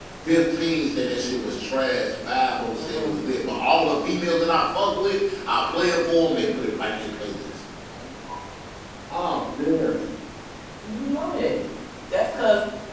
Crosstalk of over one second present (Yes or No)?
No